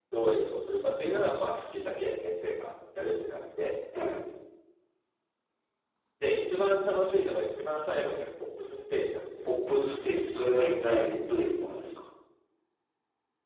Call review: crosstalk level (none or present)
none